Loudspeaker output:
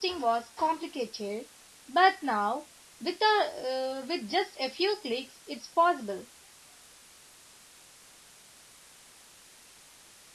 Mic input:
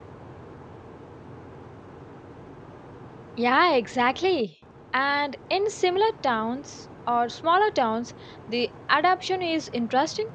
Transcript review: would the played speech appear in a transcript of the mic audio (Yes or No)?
No